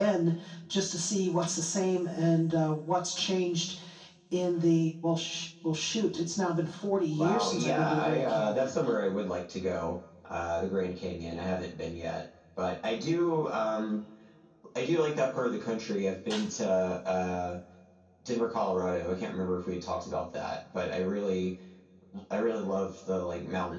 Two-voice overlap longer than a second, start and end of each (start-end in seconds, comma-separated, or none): 7.1-8.8